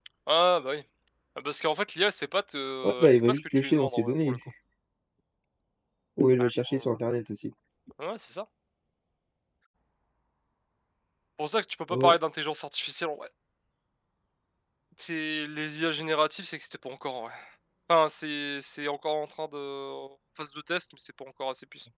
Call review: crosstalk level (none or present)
present